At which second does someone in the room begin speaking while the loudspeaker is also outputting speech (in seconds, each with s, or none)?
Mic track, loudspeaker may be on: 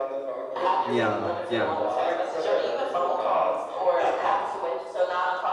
0.8 s